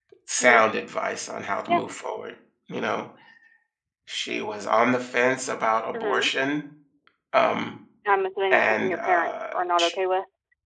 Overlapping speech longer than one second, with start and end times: 8.5-9.9

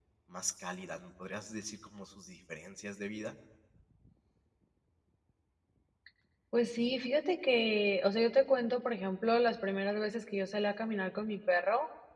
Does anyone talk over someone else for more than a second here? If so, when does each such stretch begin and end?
none

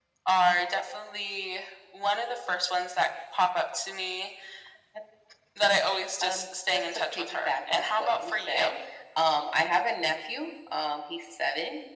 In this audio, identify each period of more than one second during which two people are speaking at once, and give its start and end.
6.2-8.7

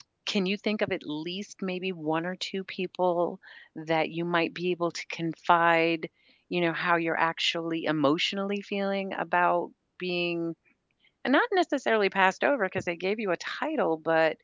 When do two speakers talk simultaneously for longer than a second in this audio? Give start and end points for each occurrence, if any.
none

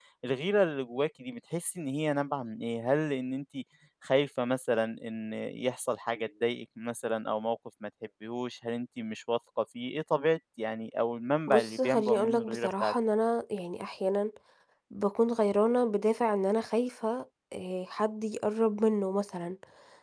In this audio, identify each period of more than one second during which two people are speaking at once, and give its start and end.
11.5-12.9

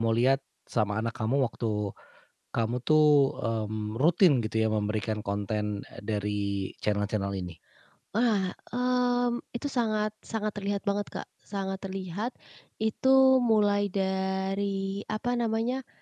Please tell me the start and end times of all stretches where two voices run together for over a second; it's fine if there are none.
none

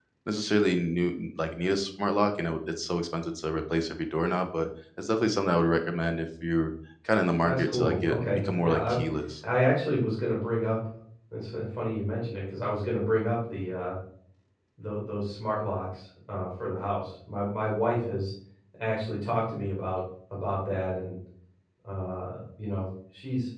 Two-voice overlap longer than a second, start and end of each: 7.4-9.0

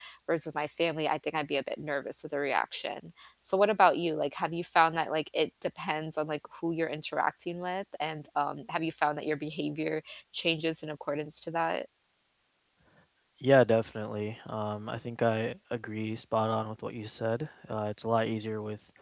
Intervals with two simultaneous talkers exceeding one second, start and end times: none

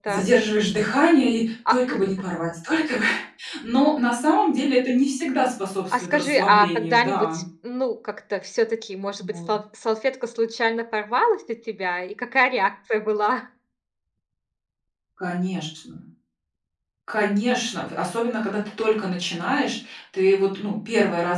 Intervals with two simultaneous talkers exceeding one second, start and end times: 5.9-7.3

